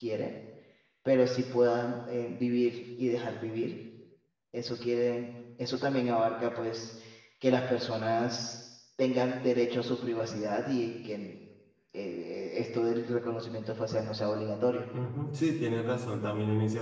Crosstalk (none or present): none